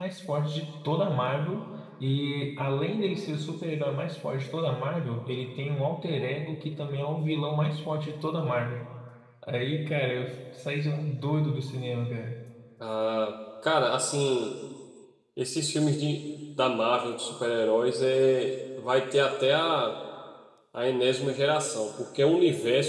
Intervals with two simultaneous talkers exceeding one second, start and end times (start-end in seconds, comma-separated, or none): none